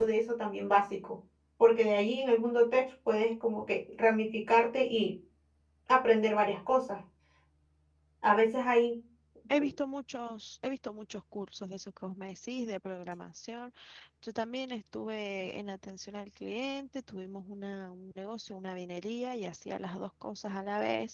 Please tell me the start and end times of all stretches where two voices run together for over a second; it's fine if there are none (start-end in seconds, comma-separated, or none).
none